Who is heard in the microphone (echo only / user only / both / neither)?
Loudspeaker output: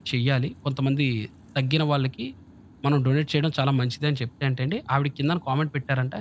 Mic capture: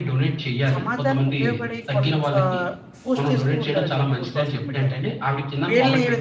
both